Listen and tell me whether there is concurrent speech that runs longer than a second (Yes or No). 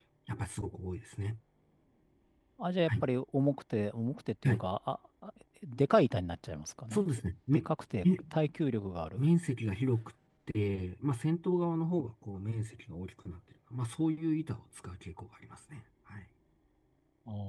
No